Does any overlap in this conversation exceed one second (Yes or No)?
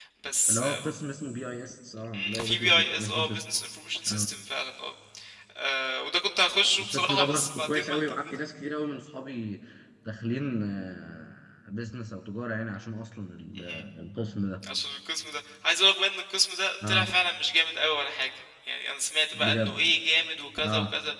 Yes